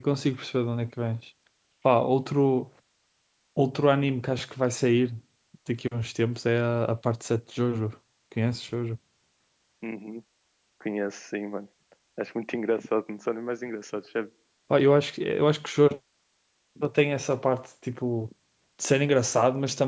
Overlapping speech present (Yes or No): No